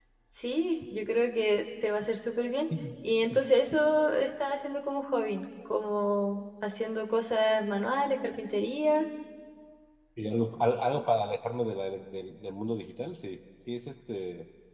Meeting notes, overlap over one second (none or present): none